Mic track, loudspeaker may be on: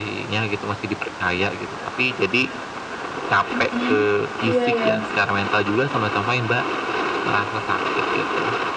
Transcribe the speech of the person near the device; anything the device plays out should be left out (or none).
mhm. Iya ya.